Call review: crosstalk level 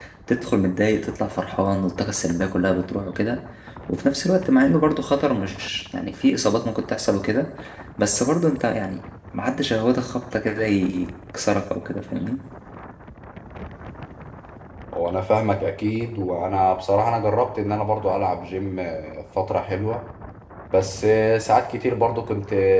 none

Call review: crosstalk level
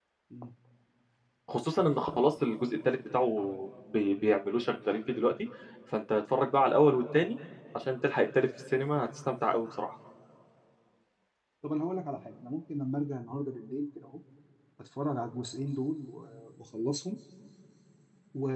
none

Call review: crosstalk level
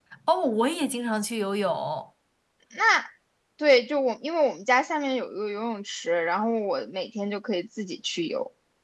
none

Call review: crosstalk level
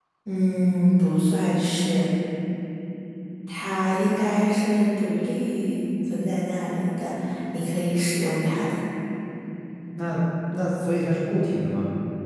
none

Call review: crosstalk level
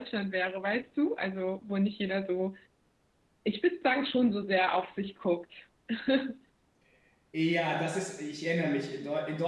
none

